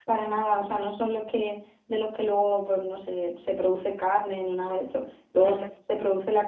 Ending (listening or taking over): listening